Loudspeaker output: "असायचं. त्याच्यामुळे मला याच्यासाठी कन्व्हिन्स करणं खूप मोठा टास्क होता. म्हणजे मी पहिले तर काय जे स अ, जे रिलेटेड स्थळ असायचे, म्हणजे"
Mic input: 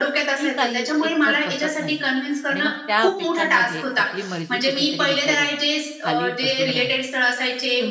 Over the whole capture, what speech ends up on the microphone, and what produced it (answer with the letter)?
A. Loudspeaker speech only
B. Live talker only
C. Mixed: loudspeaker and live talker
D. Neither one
C